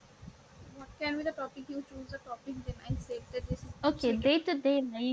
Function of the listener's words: taking over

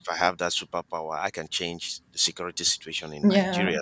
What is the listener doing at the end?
listening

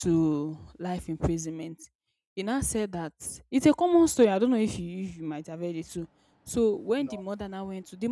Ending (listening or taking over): listening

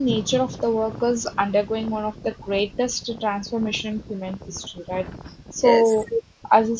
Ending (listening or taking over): listening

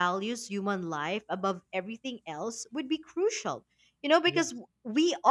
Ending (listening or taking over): listening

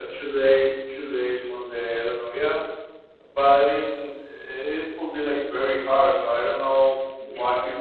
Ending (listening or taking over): listening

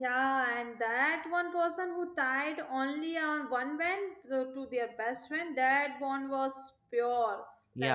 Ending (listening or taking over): taking over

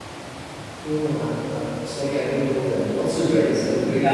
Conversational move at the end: taking over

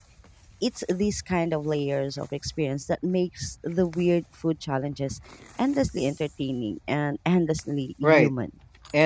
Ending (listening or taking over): taking over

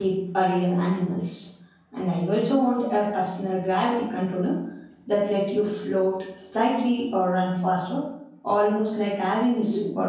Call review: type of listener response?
taking over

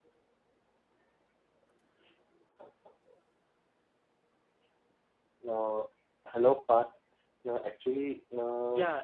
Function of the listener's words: taking over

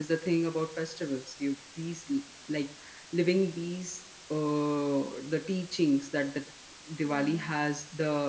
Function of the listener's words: listening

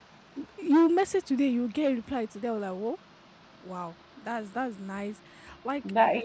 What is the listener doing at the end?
listening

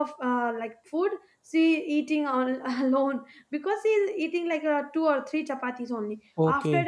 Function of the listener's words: listening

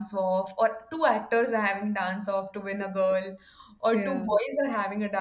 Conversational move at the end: listening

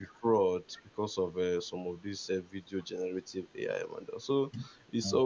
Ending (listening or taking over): listening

